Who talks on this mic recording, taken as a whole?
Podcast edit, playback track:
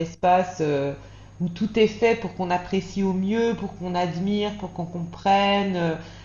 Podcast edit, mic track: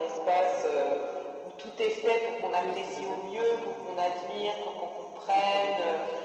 both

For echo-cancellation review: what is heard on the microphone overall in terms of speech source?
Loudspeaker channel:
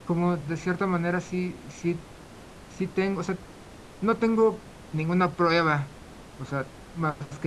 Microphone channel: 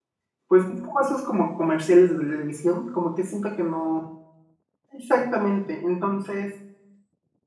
user only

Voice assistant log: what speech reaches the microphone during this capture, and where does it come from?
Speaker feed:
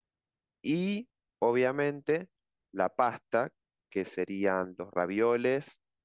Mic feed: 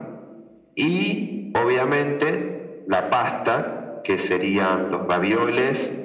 echo only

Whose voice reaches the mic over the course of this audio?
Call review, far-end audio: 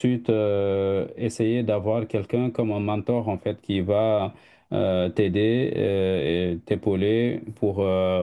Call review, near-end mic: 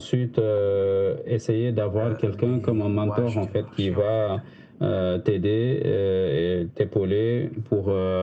both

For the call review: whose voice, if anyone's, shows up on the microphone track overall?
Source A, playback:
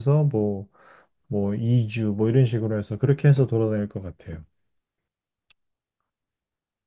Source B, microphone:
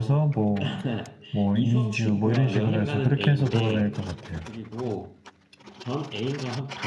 both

